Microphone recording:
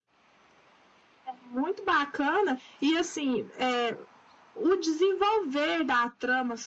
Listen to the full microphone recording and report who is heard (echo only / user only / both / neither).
echo only